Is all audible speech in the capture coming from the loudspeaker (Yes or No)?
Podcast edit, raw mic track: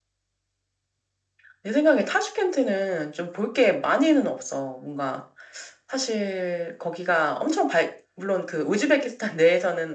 Yes